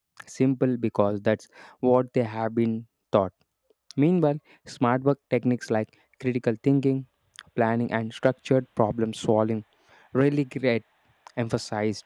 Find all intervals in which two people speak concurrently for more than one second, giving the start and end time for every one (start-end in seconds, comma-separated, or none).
none